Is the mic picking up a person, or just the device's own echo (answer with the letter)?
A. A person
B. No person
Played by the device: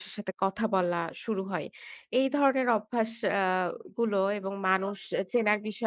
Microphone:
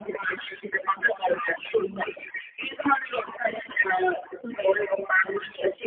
B